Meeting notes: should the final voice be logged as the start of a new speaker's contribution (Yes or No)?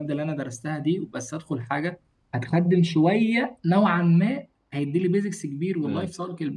No